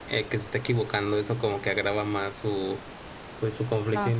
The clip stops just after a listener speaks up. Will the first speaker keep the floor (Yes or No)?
Yes